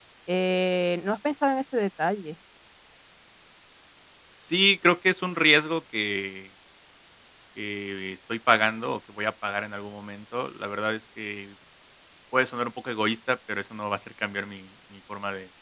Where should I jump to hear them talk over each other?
none

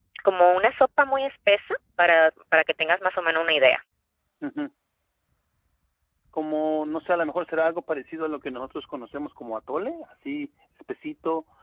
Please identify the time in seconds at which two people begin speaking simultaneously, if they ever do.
none

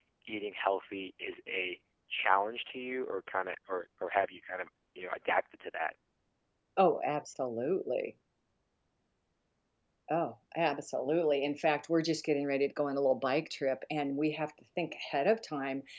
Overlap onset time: none

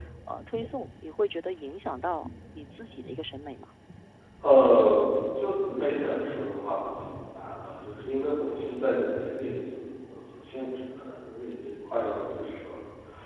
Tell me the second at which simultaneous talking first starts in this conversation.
none

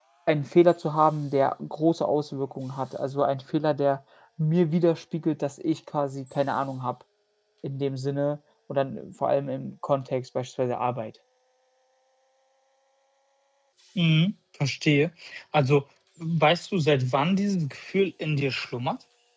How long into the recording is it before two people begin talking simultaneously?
none

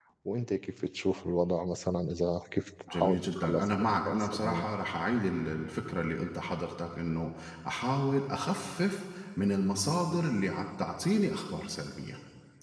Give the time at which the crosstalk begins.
2.9 s

